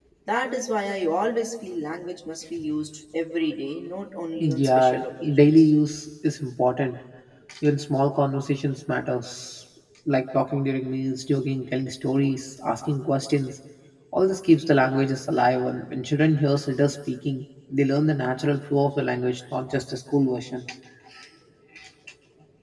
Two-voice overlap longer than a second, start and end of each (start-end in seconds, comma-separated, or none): 4.4-5.7